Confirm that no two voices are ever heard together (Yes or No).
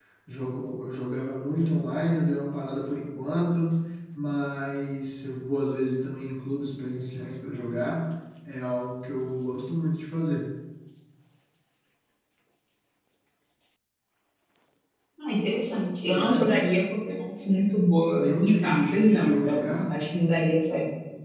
No